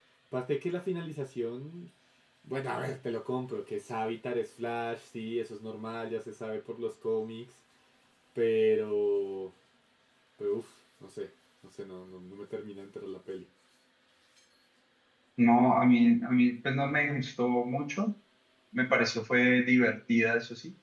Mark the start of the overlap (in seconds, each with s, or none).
none